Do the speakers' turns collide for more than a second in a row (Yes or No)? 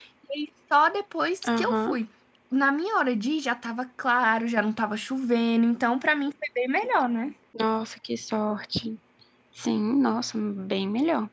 No